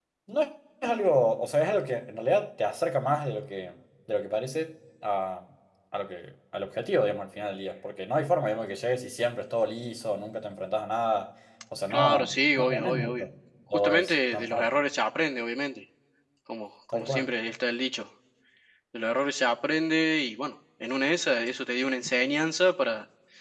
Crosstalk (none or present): present